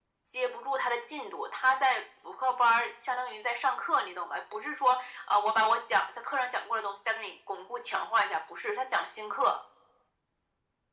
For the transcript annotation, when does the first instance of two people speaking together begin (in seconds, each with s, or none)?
none